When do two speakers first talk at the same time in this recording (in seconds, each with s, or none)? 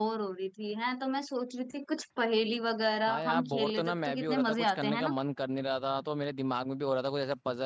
3.1 s